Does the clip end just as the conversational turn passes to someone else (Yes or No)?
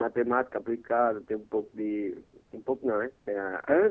Yes